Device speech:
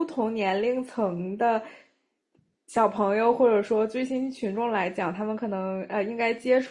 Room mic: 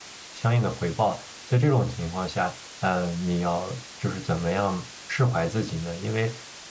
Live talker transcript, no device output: 相应的回报。在这种情况下，呃，你要就是怎么样释怀自己呢？因为，

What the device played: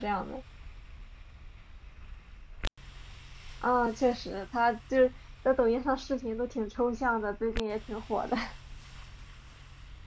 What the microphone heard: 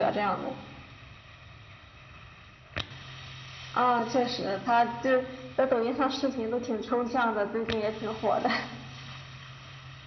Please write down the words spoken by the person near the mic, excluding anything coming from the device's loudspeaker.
none

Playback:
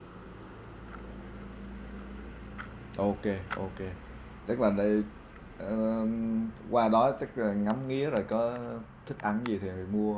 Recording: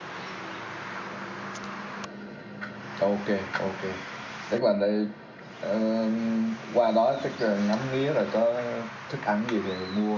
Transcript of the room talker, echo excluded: none

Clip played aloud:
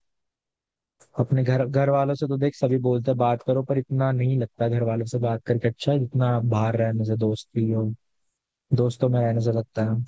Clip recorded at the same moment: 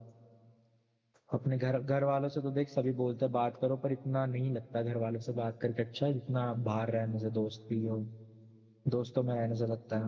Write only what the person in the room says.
none

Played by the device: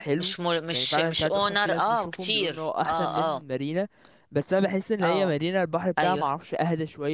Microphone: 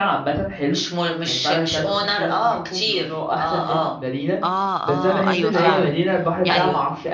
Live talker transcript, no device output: اه اه ايوه فعلا يعني

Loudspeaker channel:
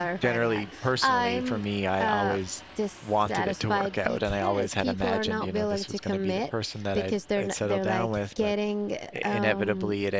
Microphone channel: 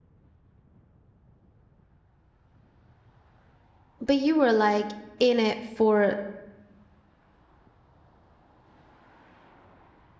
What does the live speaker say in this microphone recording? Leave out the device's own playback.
but you were like in it for

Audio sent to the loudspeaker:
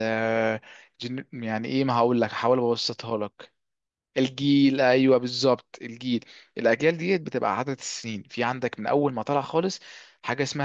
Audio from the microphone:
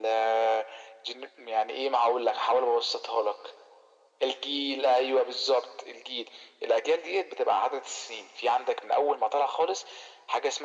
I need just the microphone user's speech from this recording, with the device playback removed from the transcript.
none

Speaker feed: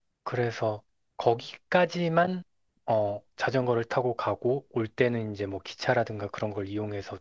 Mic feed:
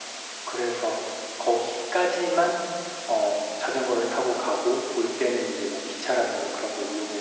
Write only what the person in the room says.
none

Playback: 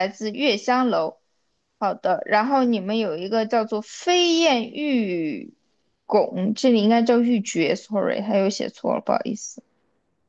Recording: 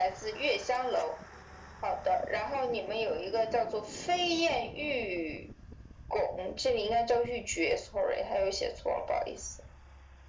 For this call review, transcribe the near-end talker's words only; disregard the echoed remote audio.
none

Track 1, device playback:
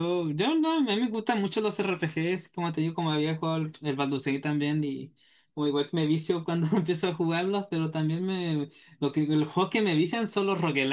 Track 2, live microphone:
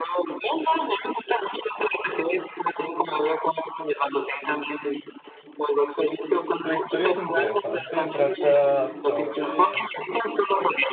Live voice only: La historia es interesante, trata sobre

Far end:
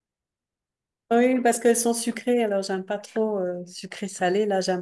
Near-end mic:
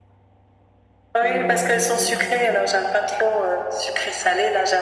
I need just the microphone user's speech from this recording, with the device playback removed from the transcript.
Et ils mélangent ça.

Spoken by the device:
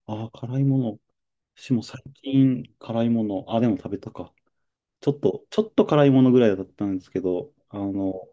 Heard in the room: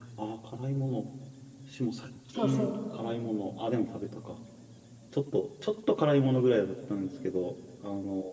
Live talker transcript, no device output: そうそう。

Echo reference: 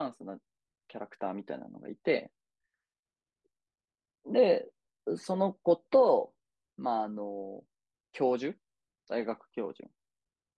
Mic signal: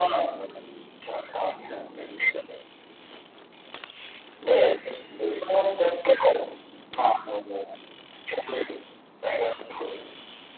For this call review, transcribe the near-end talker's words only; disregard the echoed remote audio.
none

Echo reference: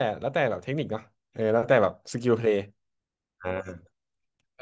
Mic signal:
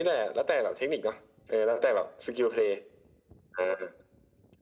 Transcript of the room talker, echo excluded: none

